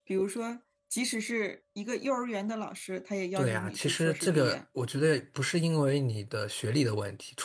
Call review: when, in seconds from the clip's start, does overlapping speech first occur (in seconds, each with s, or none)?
3.4 s